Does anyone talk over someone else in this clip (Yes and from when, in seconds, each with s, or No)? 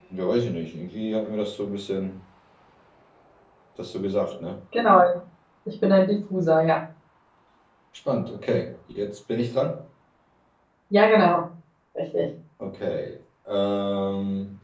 No